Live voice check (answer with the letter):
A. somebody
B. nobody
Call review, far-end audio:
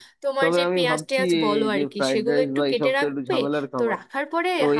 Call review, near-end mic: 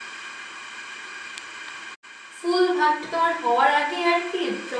A